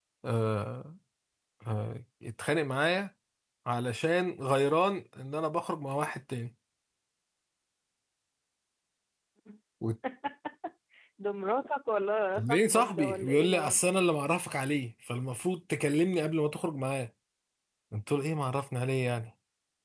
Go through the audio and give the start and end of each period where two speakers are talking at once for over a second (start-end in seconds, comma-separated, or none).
12.3-13.8